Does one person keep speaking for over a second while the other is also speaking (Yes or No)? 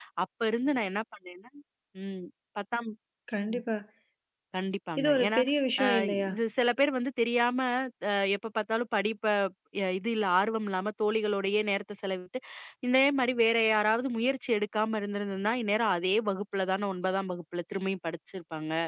No